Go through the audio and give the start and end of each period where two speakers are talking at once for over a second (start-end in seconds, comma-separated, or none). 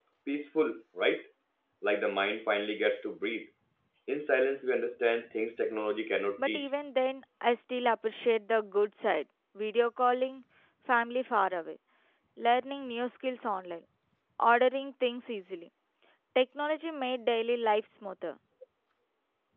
none